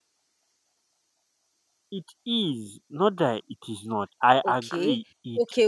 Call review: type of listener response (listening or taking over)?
taking over